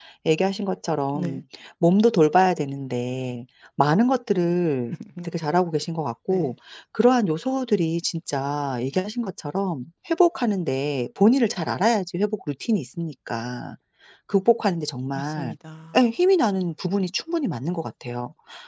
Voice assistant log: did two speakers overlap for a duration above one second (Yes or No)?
No